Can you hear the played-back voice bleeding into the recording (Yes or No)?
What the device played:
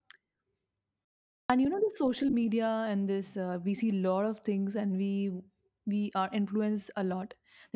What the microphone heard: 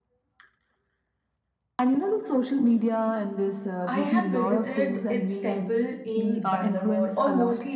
Yes